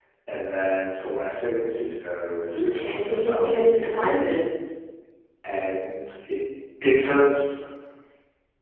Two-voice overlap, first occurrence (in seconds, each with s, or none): 2.5 s